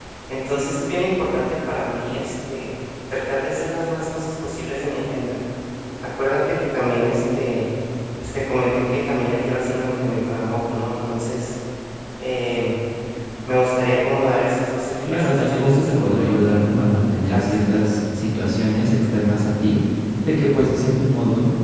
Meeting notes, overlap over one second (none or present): present